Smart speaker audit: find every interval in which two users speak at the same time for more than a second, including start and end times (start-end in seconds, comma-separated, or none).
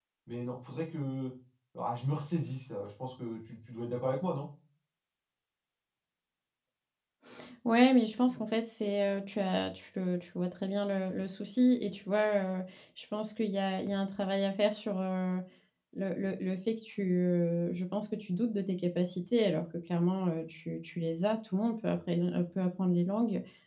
none